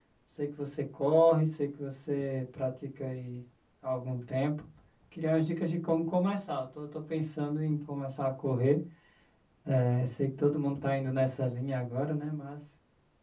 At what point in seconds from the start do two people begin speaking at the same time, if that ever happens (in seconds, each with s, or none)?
none